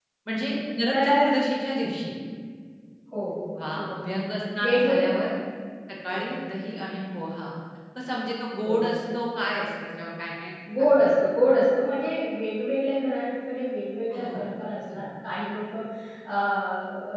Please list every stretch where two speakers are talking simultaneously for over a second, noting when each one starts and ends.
none

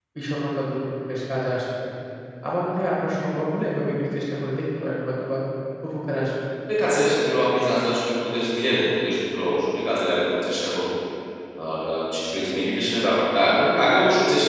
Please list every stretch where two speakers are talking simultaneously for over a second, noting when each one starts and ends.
none

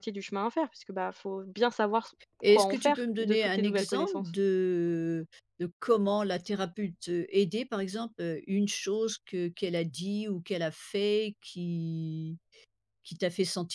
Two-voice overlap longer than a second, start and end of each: 2.5-4.3

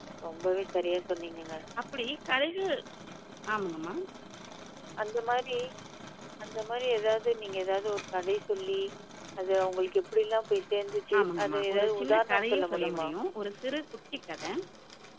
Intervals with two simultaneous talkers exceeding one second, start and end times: 11.2-13.1

